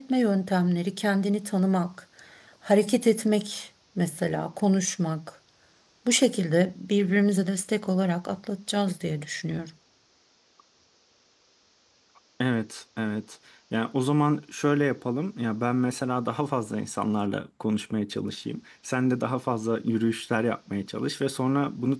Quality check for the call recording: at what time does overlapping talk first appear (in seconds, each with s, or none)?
none